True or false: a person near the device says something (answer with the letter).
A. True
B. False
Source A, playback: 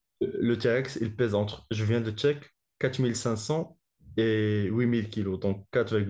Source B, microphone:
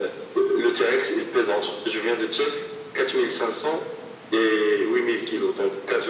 B